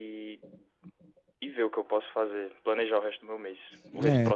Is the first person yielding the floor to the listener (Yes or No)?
Yes